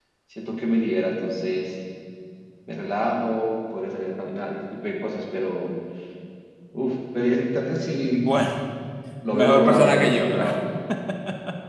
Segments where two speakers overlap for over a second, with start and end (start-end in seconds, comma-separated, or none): 9.3-10.5